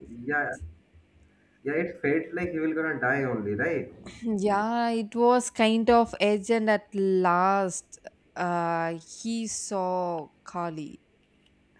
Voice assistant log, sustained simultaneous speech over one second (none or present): none